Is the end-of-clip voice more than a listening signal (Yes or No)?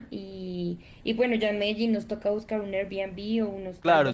Yes